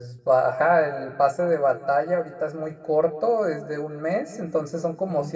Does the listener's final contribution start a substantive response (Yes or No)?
No